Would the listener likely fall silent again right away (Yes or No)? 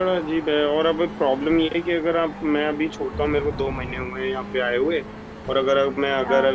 Yes